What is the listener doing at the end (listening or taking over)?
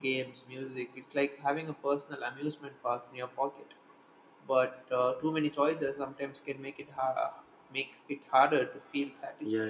taking over